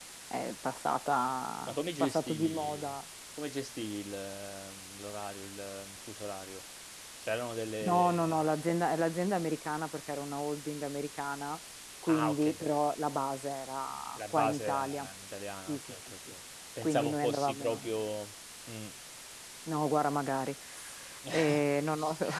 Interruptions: present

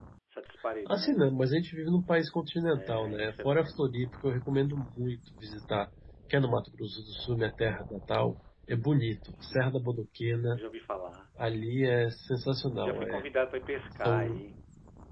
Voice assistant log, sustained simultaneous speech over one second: present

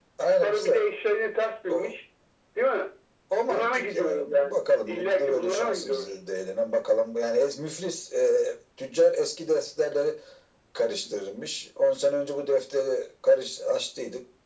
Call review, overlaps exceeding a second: present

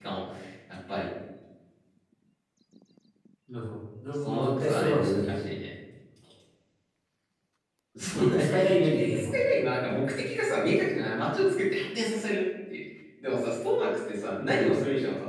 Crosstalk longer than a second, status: present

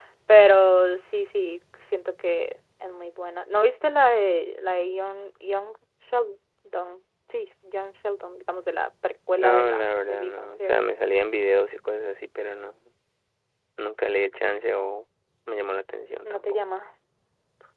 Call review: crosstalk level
present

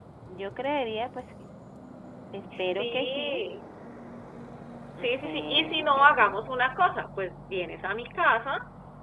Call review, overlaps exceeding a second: present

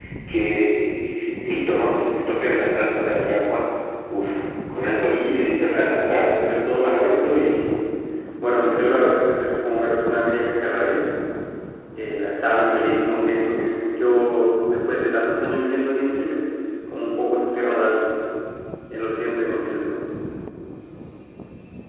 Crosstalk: present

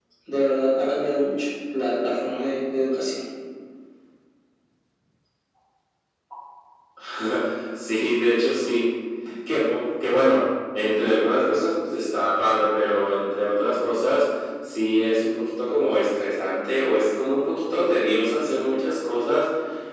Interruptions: none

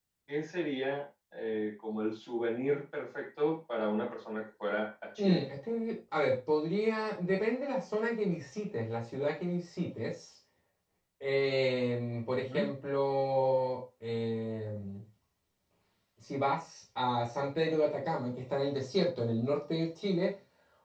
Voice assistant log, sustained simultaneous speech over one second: none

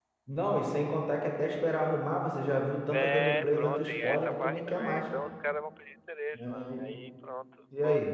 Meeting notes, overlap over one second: present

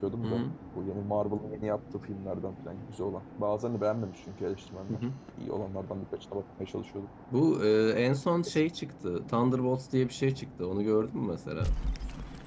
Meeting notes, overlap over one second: none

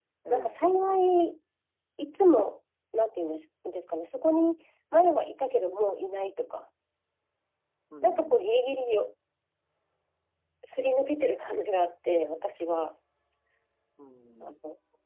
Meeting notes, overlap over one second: none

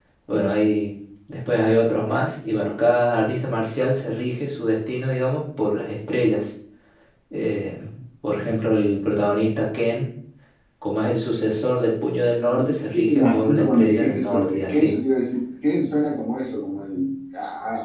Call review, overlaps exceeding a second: present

